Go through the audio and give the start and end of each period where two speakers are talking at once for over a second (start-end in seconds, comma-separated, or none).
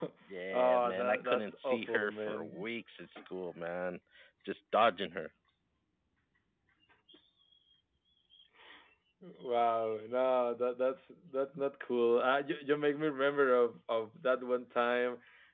0.5-2.6